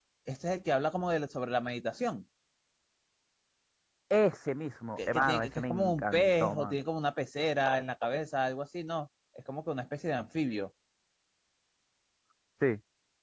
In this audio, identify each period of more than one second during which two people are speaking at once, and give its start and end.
5.0-6.8

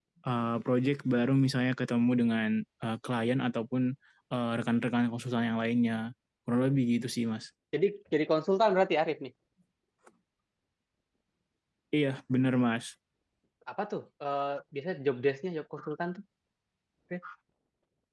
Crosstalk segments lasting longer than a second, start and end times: none

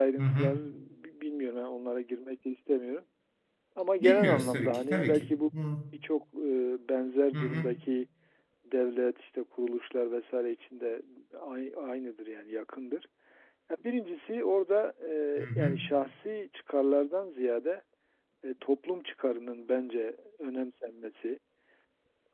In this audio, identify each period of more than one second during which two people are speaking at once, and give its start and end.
4.0-5.4

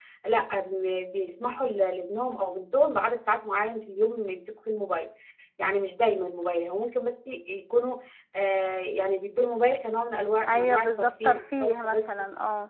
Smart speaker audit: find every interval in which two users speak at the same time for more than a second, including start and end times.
10.5-12.0

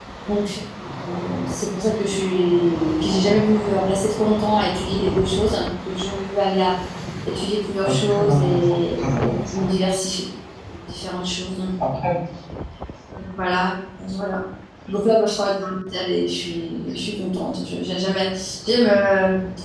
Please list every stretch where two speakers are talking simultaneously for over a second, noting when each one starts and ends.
7.8-9.7

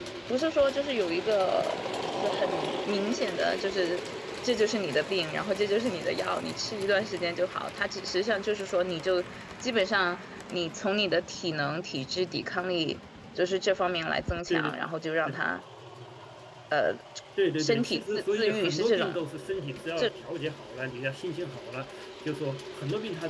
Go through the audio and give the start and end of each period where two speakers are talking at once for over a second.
17.6-19.2

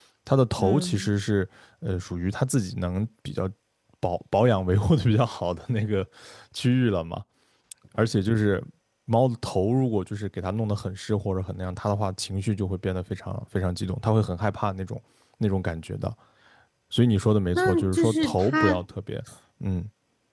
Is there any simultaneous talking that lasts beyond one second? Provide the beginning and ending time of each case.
17.5-18.8

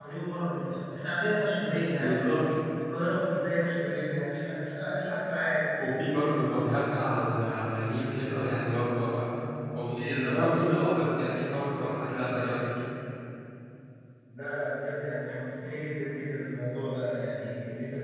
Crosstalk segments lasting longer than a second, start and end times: none

